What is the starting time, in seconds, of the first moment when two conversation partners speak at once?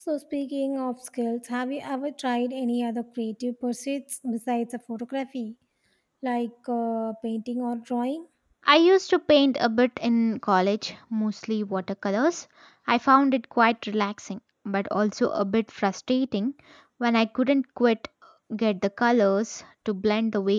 none

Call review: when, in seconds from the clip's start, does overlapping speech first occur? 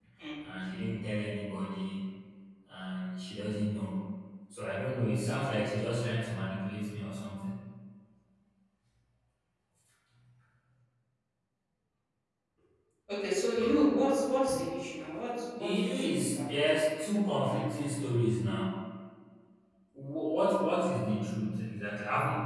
15 s

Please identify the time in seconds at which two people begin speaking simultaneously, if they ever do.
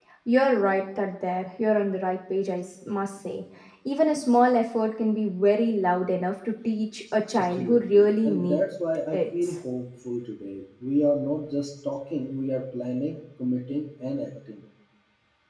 7 s

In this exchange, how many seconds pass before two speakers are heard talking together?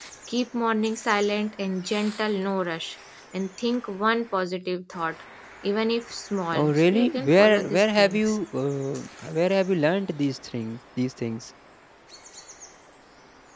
7 s

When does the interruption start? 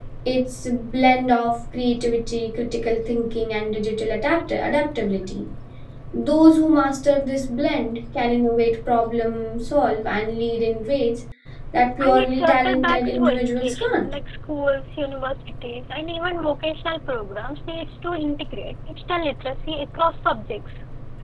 12 s

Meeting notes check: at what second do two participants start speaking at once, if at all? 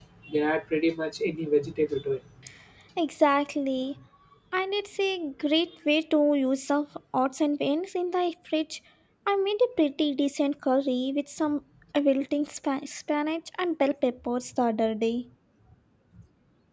none

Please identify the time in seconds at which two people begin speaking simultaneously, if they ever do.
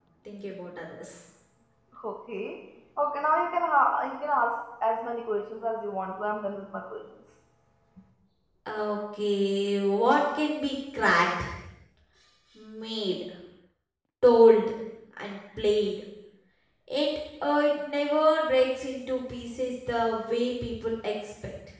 none

